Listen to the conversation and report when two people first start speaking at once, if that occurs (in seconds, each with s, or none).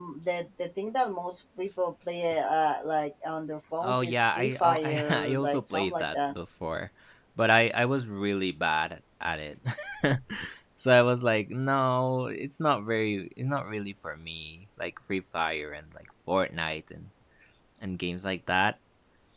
3.8 s